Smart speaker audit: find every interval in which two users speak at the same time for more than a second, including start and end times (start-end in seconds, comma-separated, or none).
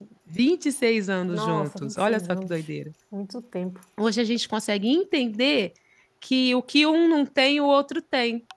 1.3-2.6